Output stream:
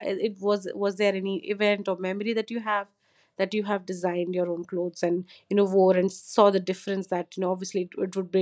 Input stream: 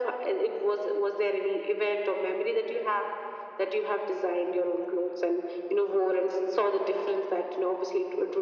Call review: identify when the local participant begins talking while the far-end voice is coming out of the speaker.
none

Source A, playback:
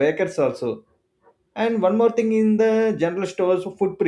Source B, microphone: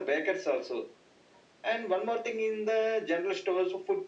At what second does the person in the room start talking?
none

